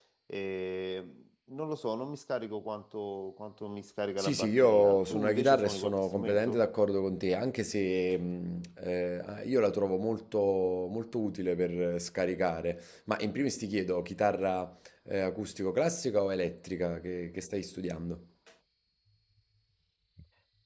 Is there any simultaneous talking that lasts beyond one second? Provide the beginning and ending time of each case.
4.2-6.6

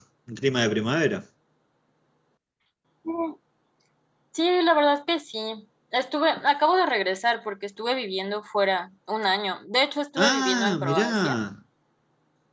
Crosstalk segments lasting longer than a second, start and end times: 10.2-11.4

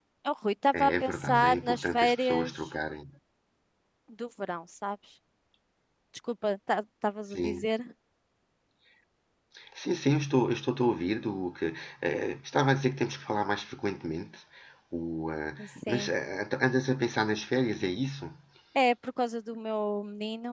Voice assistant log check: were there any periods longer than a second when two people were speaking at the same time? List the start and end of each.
0.8-2.5

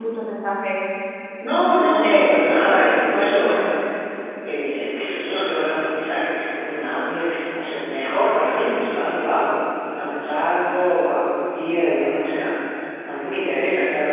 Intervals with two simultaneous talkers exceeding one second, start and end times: 1.7-3.6

